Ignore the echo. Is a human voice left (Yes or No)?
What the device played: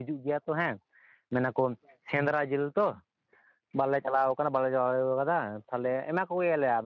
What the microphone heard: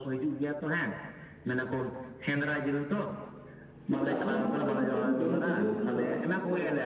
Yes